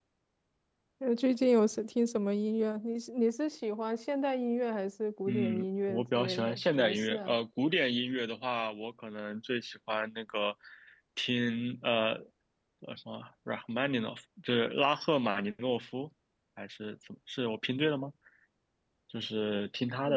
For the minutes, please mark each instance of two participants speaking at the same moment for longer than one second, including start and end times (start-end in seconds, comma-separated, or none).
5.3-7.3